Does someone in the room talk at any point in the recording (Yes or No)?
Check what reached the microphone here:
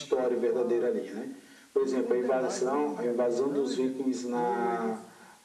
Yes